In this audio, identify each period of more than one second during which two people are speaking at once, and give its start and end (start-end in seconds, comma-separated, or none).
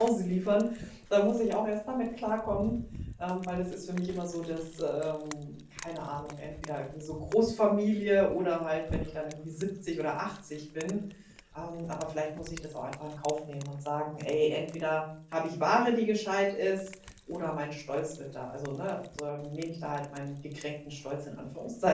none